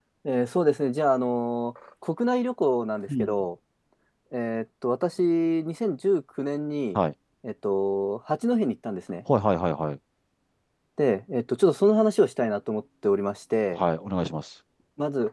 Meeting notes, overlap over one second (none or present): none